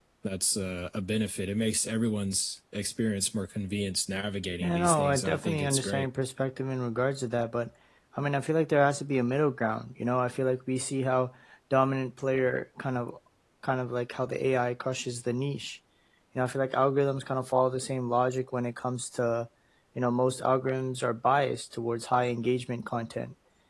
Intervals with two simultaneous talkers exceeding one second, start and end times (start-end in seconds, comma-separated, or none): 4.6-6.1